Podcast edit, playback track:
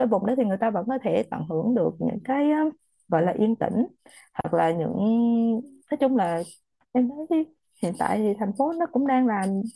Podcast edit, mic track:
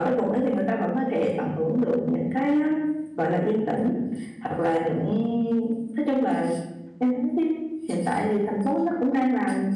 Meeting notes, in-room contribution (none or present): none